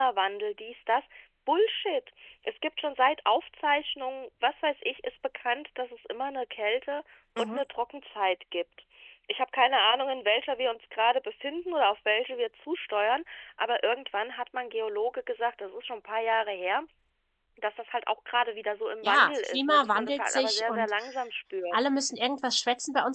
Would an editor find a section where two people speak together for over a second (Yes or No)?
Yes